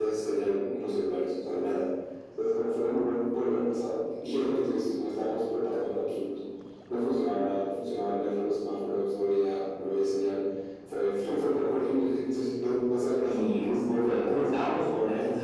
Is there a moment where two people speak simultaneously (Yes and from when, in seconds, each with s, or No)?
Yes, from 13.2 s